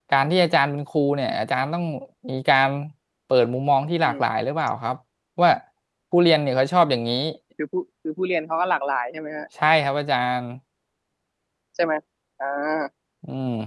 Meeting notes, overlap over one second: none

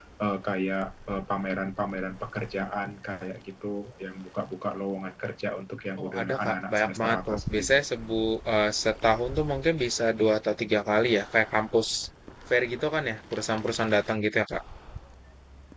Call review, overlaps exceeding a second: present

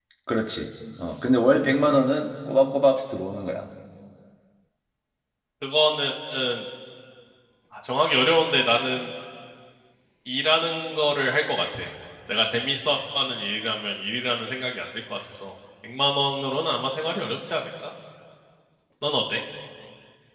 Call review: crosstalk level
none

